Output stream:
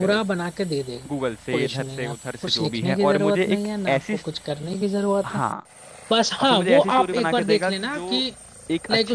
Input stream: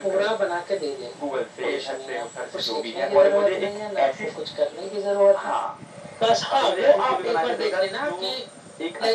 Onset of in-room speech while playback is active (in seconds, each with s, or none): none